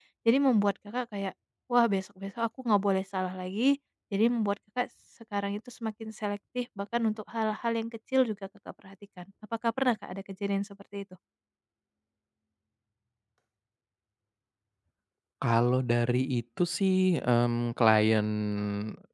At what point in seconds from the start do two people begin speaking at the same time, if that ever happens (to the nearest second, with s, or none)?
none